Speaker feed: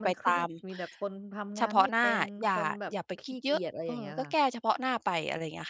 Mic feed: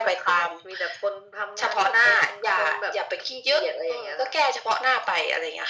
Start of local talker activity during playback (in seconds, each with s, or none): none